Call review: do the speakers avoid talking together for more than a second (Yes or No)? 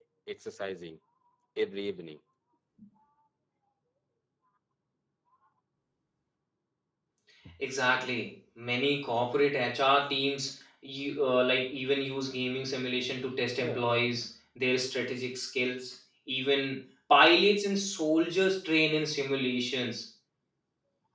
Yes